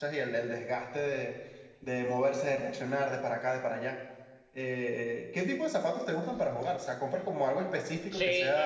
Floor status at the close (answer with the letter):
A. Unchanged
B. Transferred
B